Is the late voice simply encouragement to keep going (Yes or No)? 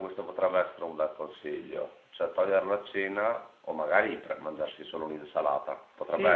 No